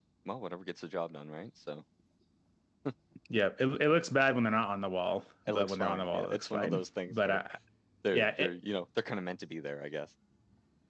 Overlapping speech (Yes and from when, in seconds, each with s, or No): Yes, from 5.5 s